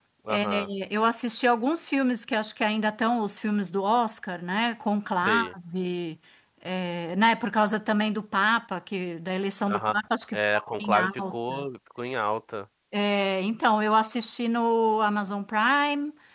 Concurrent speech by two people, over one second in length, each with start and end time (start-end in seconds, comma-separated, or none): 10.3-11.6